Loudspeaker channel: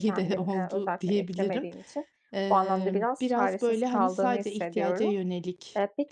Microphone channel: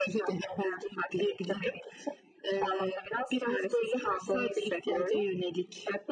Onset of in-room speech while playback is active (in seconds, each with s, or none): none